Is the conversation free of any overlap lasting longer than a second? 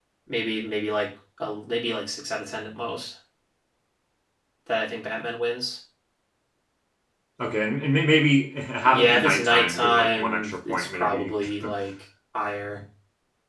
No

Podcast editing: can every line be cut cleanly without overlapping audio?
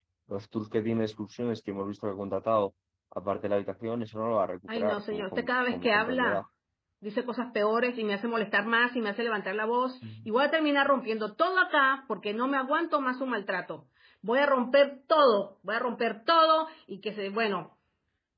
No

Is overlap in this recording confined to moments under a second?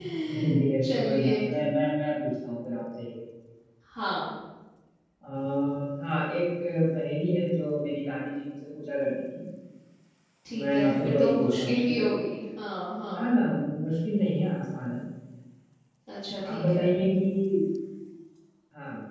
No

